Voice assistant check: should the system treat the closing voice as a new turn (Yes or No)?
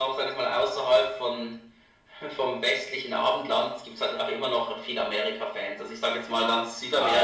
Yes